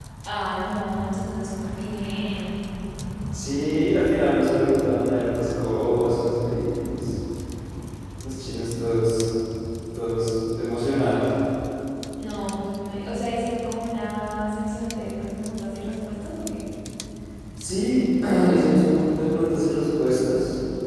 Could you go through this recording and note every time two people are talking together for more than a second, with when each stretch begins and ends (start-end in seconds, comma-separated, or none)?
none